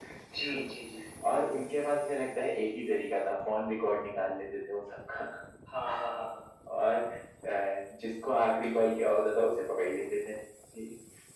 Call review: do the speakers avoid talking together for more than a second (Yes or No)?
Yes